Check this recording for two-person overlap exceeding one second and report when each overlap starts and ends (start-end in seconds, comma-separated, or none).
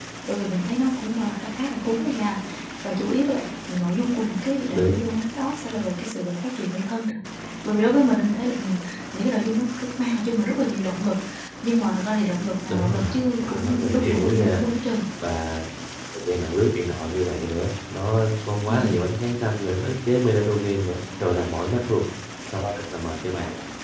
12.7-14.6